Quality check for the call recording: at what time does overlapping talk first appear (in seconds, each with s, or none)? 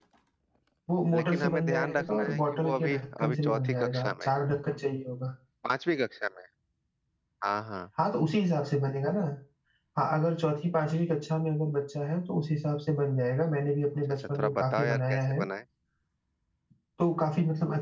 1.1 s